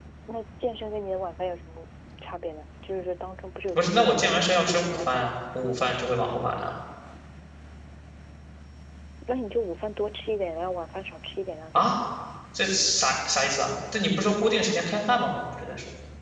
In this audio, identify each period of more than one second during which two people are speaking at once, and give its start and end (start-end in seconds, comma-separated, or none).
3.8-5.3